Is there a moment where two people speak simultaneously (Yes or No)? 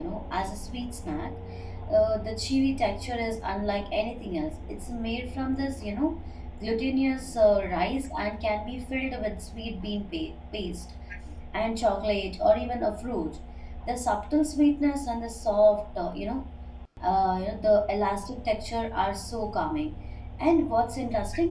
No